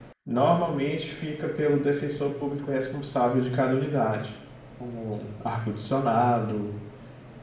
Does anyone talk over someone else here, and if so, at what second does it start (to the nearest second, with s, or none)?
none